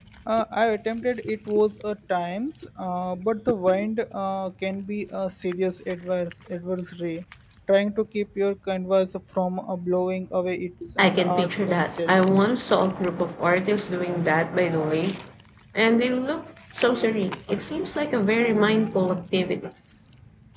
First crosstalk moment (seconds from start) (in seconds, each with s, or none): 11.0 s